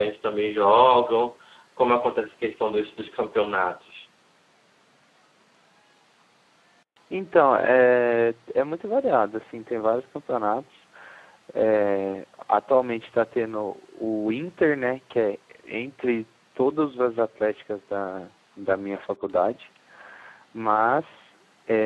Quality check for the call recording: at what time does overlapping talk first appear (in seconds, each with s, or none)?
none